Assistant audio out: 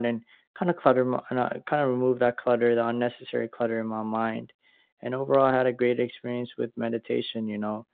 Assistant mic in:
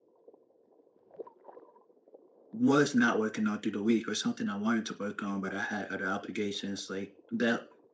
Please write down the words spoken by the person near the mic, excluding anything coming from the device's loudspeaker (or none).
was not working on through the week or something I wanted to work on, but I had other obligations. Like that